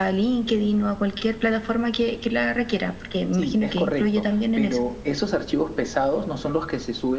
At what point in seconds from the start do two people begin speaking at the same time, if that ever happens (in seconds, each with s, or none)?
3.3 s